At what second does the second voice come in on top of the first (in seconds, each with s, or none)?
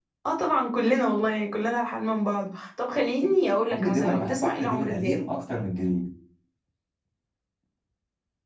3.7 s